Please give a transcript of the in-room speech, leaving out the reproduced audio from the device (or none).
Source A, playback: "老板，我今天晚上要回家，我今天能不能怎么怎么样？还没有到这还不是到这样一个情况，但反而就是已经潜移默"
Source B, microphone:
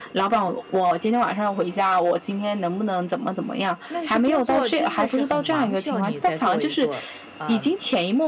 那是工作真的是很忙，需要你再做一做，啊。